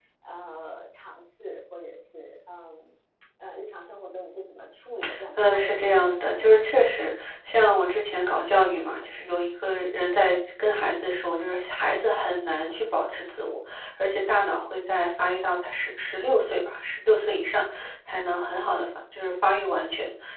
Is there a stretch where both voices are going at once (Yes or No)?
Yes